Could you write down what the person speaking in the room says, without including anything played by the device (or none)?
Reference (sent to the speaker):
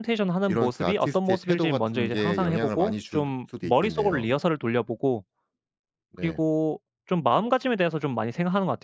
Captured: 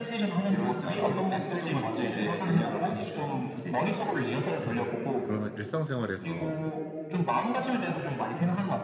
음 그러면 일상생활에서